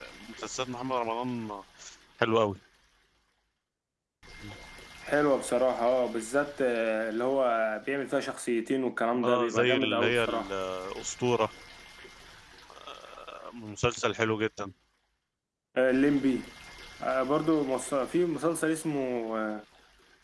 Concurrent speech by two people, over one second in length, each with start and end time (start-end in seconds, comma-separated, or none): 9.2-10.5